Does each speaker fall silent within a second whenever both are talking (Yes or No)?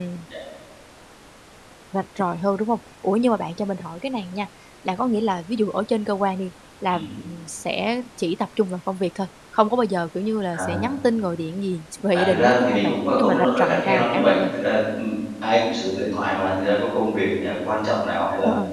No